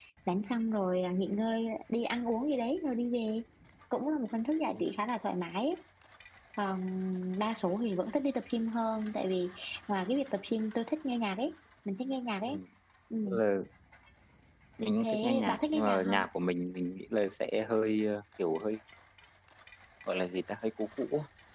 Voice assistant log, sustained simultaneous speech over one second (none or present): present